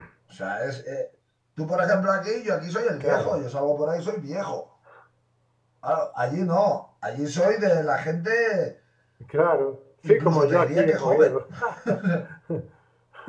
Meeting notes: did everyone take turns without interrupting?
No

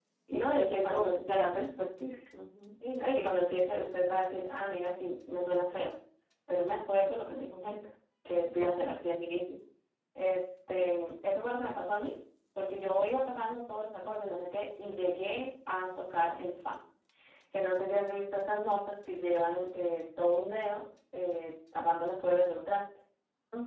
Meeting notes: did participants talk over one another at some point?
Yes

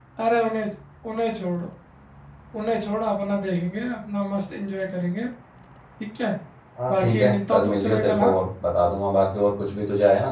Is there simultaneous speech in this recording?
Yes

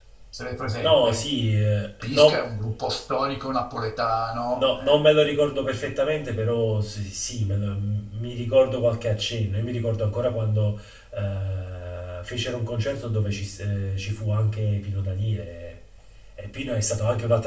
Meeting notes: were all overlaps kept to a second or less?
Yes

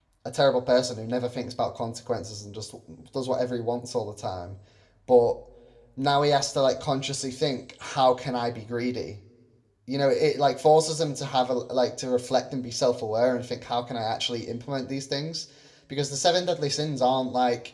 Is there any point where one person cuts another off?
No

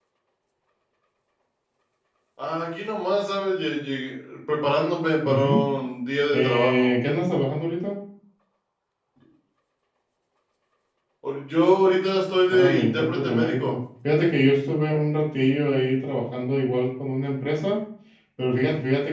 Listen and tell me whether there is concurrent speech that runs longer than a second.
Yes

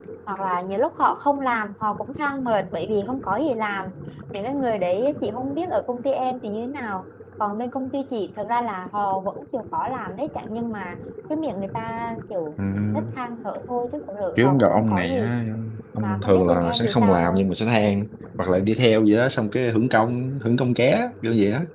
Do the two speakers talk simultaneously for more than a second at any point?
Yes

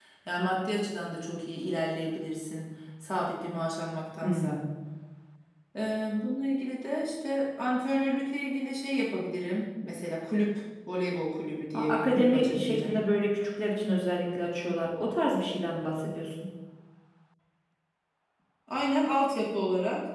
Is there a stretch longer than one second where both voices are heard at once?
Yes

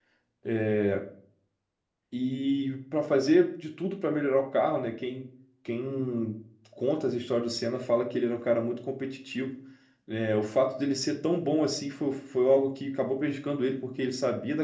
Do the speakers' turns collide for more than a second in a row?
No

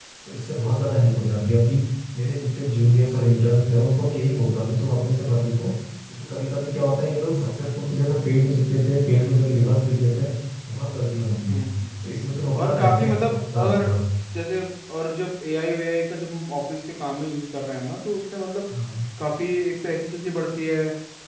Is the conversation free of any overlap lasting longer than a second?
No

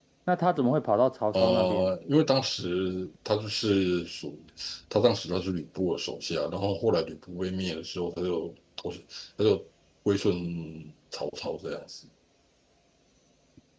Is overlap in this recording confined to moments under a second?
Yes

